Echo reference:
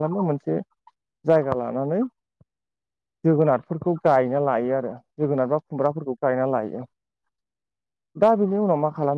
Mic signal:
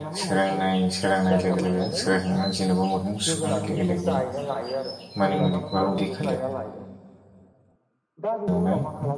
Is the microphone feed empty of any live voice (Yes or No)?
No